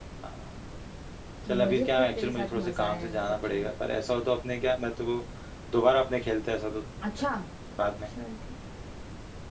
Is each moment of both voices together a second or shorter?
No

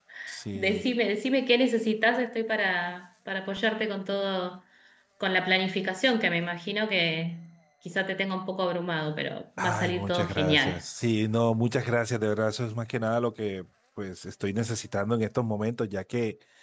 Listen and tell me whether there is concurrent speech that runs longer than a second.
Yes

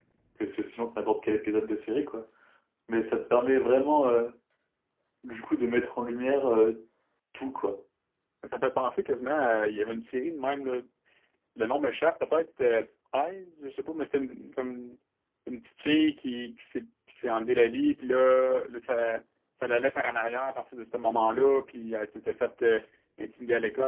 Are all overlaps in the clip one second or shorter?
Yes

